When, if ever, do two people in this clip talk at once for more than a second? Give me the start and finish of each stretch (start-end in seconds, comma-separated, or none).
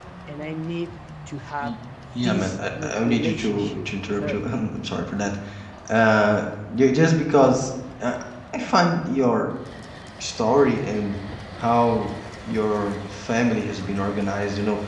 2.2-4.4